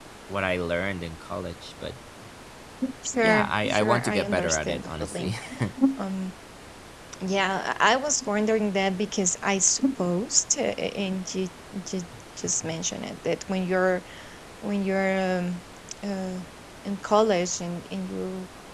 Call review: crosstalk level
present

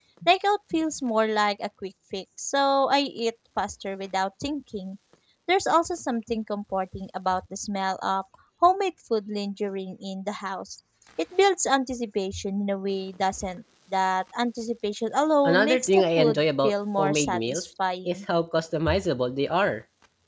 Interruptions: present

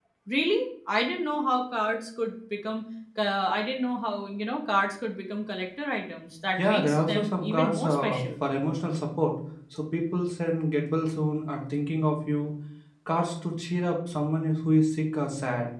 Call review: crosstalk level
present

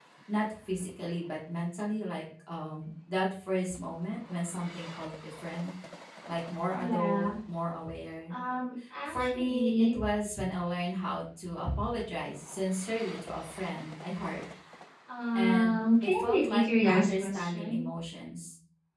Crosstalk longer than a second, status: present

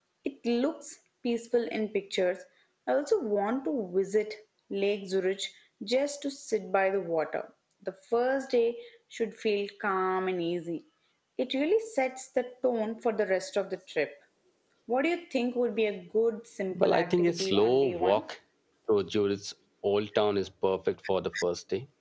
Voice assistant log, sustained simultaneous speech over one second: present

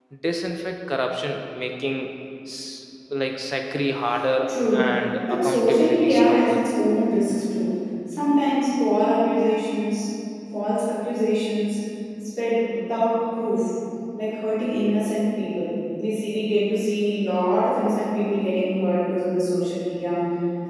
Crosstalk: present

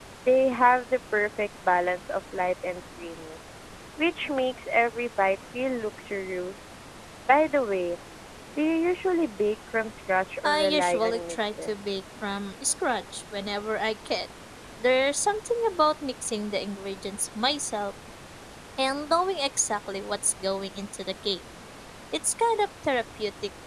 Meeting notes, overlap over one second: present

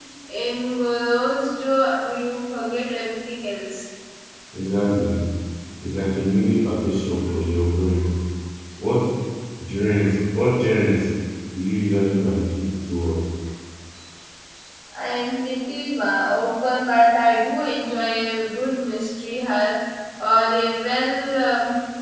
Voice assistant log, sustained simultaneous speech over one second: none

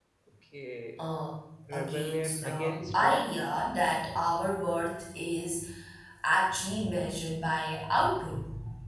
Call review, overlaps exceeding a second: present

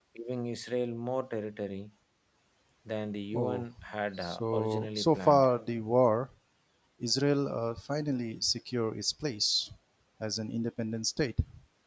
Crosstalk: present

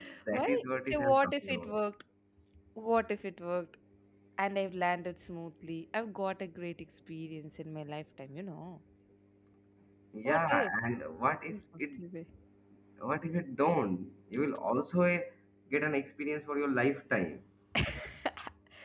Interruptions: present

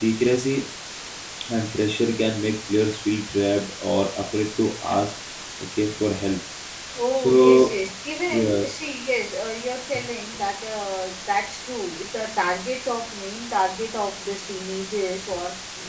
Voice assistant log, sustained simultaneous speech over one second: none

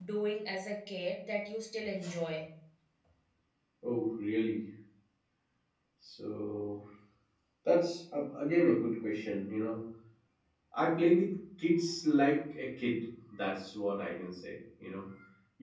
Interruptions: none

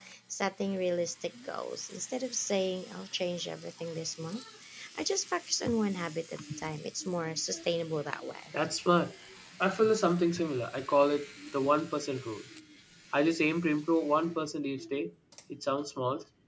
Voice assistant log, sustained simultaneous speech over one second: none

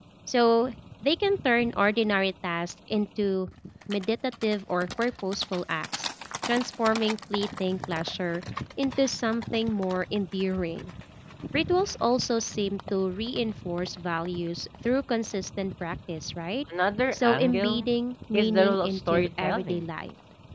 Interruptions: present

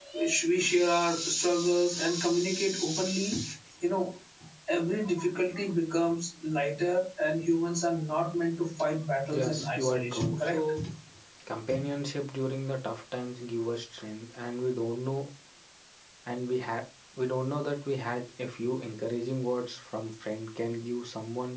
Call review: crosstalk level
present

